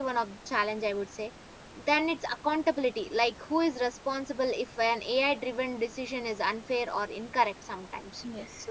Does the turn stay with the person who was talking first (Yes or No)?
Yes